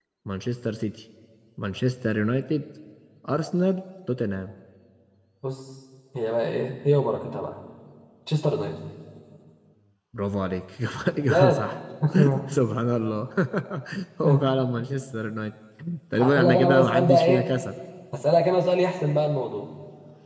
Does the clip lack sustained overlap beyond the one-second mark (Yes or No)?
No